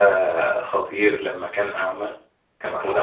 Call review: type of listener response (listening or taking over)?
listening